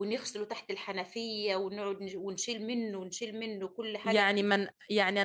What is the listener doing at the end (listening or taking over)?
taking over